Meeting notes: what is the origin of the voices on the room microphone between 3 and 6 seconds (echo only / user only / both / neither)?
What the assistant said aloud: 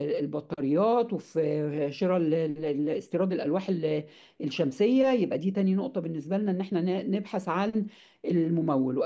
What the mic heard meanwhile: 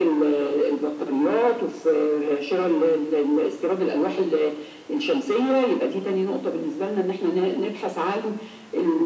echo only